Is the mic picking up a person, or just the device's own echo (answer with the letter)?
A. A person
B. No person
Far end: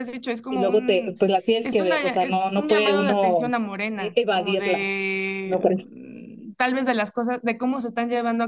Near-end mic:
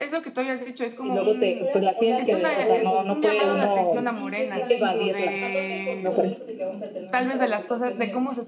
A